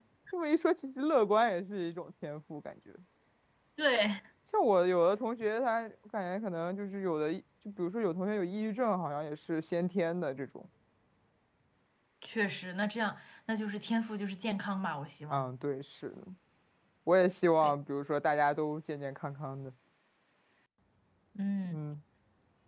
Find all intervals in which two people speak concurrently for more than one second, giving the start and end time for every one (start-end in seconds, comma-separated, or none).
none